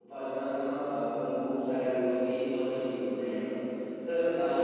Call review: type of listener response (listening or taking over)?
listening